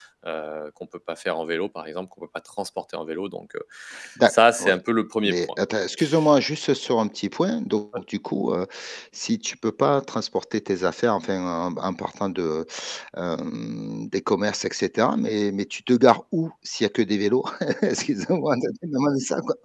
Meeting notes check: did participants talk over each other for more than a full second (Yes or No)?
No